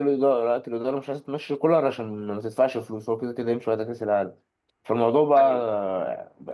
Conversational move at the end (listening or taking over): listening